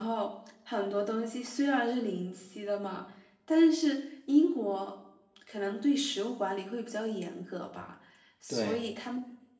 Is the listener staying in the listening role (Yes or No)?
Yes